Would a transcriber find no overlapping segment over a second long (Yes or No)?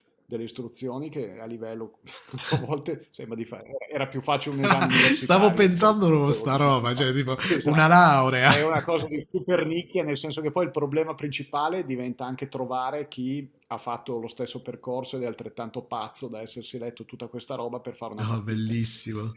No